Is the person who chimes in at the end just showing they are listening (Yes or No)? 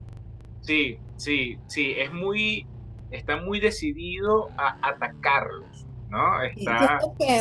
No